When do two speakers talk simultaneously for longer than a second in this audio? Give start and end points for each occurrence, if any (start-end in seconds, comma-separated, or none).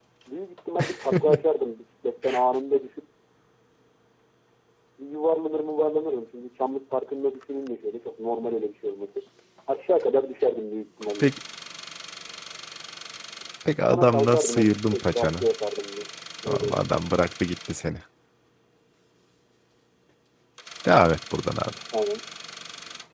13.9-15.5